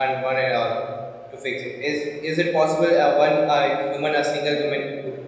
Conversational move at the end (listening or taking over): listening